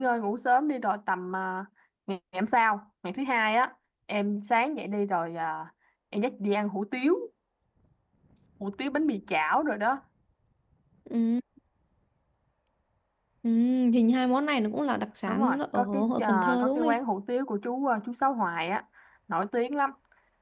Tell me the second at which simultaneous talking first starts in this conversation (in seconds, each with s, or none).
15.3 s